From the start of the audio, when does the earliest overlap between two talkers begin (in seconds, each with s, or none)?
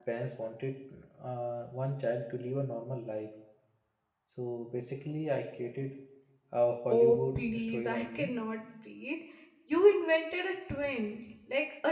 6.9 s